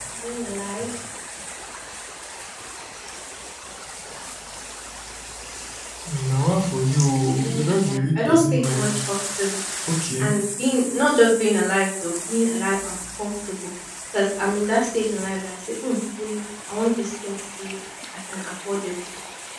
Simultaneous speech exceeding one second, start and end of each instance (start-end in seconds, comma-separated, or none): 7.4-9.0